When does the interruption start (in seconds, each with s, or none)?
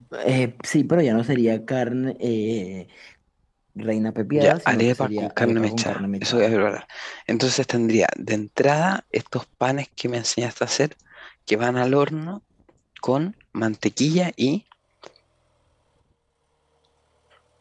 4.4 s